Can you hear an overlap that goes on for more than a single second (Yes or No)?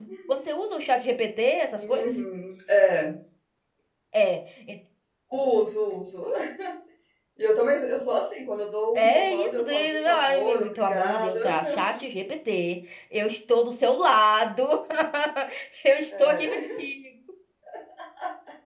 Yes